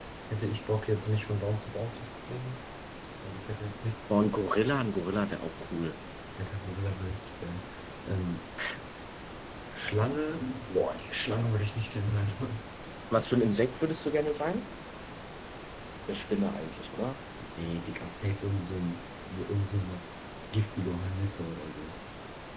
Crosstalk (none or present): none